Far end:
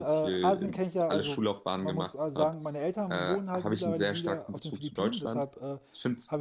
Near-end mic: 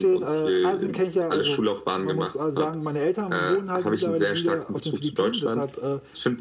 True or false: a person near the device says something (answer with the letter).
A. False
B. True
A